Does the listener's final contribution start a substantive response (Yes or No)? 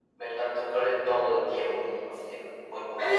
Yes